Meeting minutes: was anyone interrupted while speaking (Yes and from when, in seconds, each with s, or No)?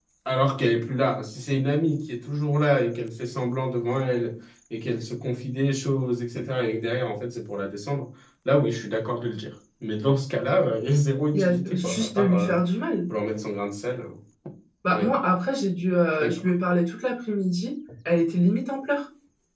Yes, from 11.3 s